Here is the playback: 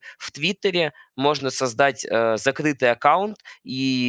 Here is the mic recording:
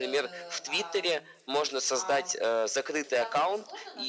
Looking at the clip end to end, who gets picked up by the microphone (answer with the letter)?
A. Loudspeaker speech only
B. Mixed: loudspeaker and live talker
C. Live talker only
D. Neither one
B